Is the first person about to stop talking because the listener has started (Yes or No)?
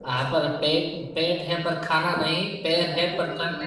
Yes